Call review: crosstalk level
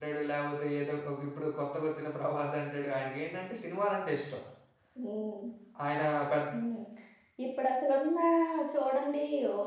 none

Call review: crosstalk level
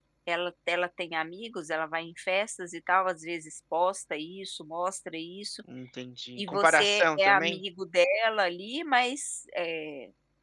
present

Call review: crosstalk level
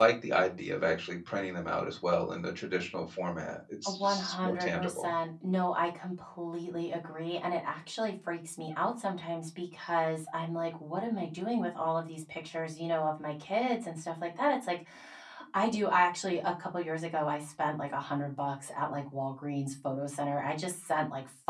present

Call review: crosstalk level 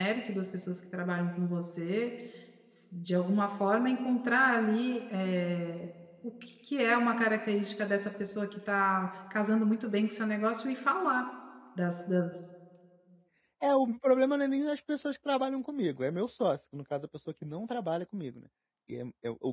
none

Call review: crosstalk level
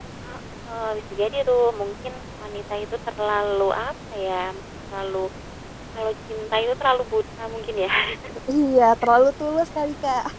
none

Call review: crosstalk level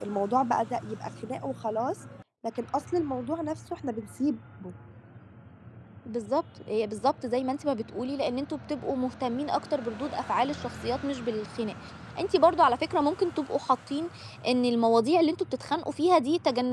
none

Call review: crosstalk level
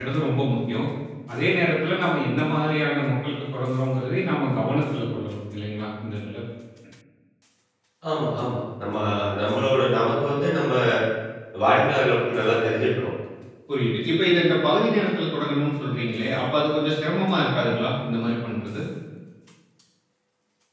none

